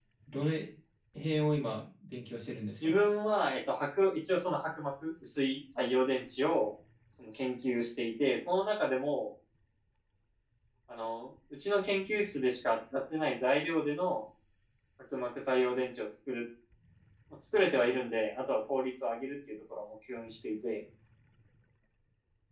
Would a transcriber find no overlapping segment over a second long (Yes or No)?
Yes